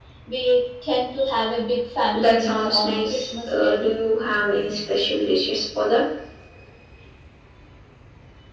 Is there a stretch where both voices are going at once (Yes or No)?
Yes